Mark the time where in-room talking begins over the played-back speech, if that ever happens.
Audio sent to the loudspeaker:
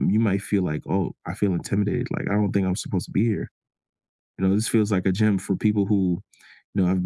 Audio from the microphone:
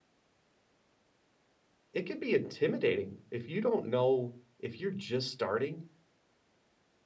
1.9 s

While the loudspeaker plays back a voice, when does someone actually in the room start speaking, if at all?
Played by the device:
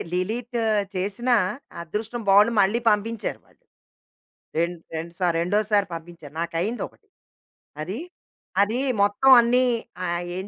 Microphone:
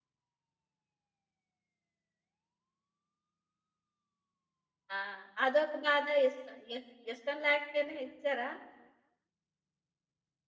5.0 s

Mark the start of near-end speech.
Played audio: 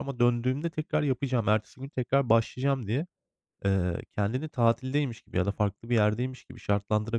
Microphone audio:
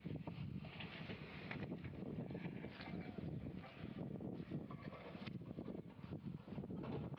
none

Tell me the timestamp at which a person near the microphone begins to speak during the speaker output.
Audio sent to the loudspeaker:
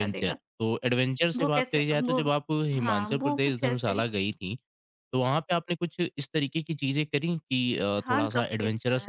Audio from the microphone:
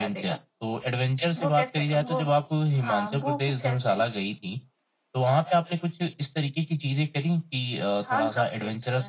none

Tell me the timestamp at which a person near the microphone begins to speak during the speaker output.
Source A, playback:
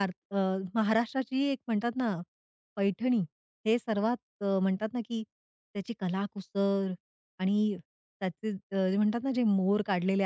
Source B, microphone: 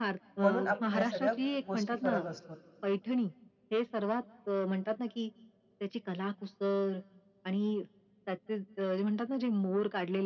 0.4 s

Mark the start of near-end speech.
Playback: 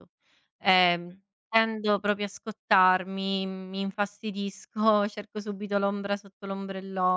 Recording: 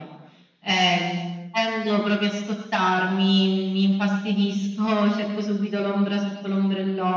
none

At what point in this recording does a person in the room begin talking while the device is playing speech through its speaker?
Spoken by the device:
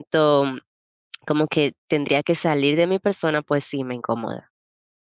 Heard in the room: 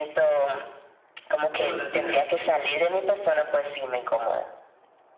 1.5 s

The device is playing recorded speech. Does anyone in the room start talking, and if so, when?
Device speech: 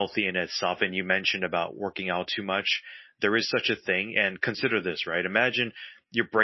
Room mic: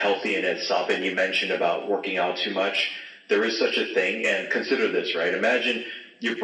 none

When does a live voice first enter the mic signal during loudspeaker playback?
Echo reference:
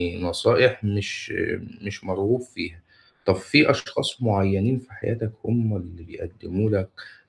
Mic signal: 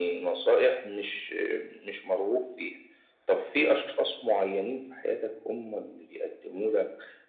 none

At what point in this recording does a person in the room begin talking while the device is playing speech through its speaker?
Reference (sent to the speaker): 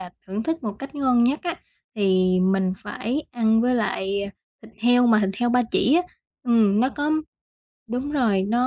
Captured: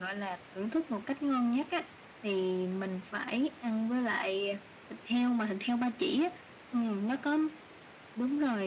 none

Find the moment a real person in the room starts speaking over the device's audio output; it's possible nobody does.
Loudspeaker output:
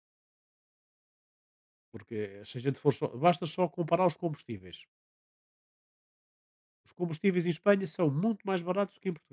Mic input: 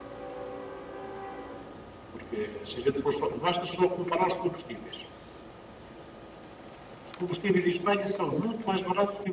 none

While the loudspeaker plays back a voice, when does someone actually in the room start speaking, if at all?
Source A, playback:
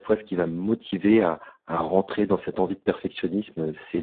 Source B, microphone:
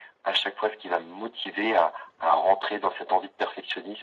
none

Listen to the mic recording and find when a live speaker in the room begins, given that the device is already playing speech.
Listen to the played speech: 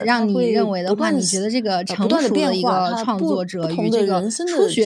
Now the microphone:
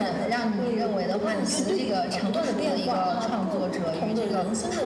1.5 s

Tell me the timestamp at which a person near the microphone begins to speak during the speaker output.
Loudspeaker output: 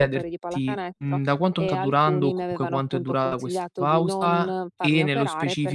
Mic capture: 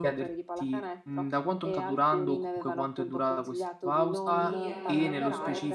4.4 s

